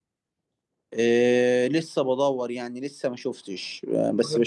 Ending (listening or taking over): listening